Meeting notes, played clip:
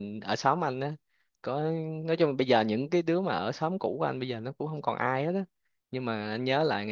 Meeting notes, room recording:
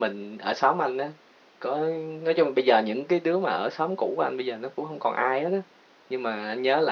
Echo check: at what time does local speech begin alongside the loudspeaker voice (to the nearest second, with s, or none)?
none